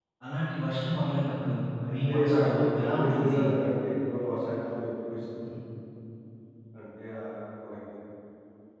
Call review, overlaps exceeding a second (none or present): present